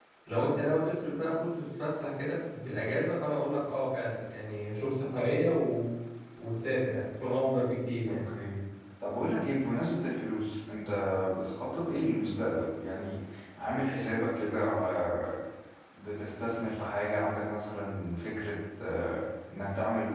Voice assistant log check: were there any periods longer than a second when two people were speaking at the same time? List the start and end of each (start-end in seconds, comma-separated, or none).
none